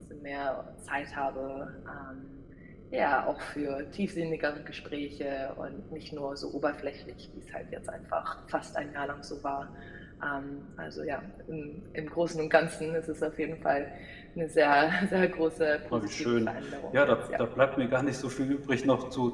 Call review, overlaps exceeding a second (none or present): present